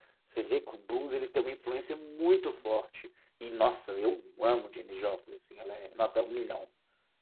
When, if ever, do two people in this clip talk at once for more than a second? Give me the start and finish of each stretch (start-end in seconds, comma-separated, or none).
none